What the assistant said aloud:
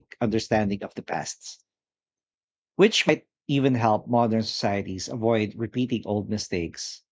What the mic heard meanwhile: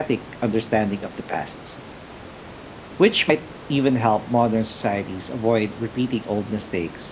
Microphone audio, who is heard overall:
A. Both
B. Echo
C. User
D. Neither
B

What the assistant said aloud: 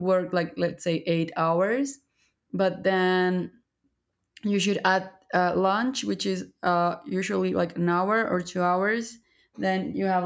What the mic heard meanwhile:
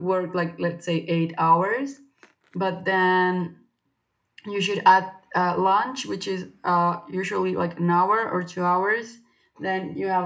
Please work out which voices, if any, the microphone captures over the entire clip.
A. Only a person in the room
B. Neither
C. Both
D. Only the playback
D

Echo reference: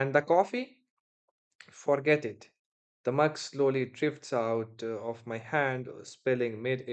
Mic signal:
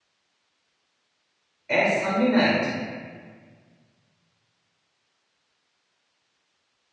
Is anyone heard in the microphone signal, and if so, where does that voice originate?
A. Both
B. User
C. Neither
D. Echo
B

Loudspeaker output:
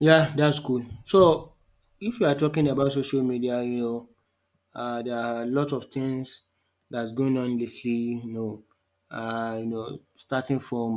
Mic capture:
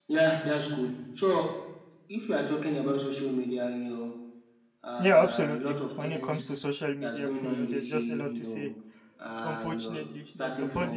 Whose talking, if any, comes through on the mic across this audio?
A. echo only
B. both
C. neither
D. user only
B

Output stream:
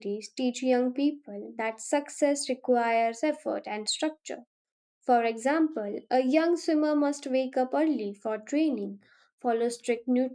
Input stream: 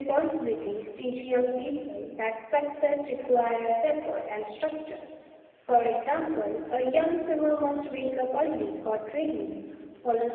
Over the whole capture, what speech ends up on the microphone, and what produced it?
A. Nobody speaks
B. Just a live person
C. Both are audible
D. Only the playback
D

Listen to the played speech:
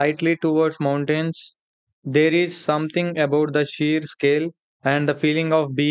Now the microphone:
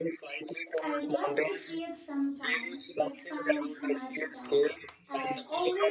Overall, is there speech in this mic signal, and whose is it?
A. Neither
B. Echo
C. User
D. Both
D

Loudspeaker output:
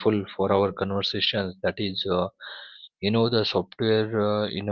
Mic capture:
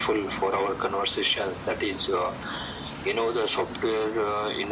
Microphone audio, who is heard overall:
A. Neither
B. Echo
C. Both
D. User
B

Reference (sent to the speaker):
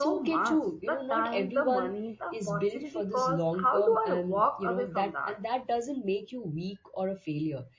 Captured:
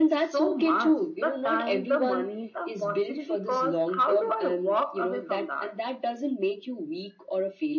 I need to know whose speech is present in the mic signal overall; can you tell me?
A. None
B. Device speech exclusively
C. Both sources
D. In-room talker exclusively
B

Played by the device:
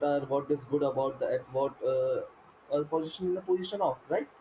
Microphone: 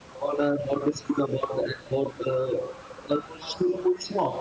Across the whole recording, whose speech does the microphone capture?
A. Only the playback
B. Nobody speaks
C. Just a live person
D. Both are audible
A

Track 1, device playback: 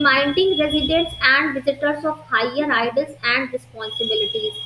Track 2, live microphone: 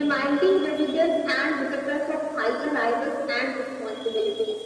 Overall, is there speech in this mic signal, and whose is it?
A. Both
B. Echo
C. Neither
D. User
B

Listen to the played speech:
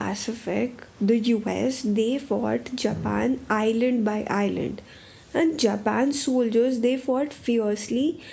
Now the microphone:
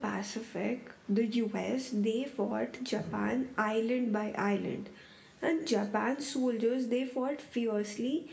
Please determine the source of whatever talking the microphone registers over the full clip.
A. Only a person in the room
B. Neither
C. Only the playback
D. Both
C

